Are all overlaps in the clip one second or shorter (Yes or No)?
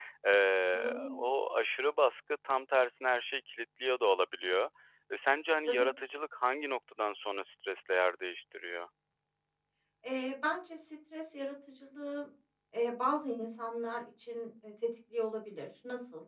Yes